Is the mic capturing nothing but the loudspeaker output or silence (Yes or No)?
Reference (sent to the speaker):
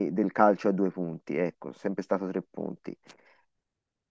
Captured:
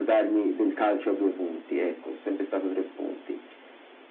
Yes